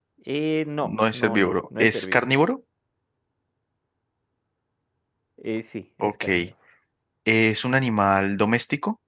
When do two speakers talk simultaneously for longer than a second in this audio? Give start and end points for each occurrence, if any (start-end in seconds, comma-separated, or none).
0.8-2.2